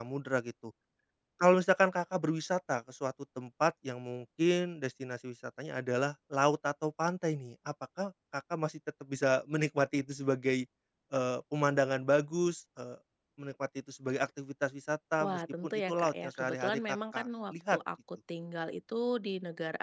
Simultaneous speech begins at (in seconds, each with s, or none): 15.2 s